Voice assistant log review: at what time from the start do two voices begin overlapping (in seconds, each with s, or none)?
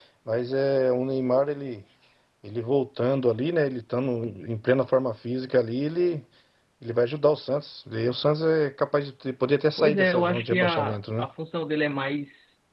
9.8 s